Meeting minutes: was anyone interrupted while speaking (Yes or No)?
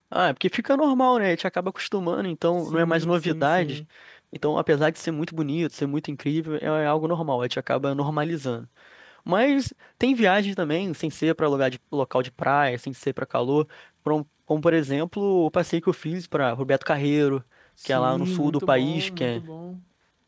Yes